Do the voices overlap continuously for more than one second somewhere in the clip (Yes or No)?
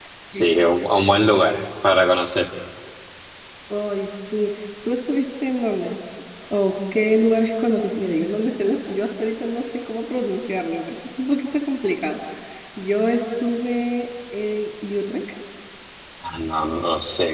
No